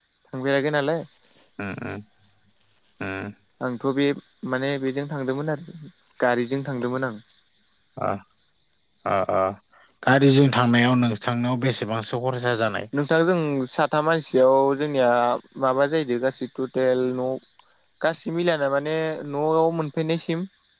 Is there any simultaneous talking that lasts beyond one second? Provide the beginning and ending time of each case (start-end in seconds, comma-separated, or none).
none